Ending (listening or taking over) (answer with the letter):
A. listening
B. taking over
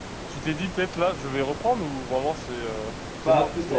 B